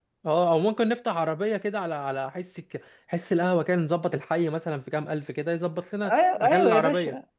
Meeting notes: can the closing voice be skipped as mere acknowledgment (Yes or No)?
No